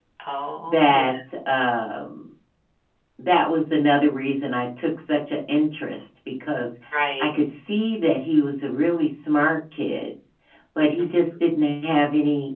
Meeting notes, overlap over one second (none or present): none